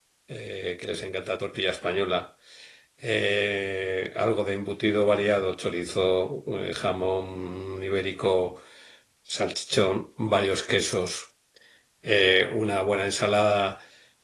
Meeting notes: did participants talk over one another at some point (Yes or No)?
No